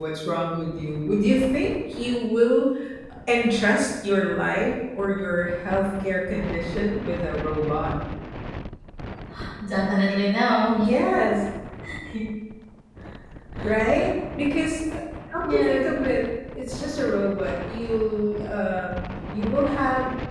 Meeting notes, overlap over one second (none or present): none